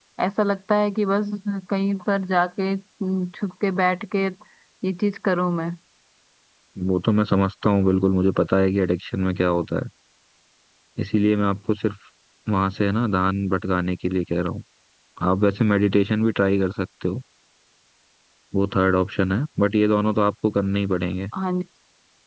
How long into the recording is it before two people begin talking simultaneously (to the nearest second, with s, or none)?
none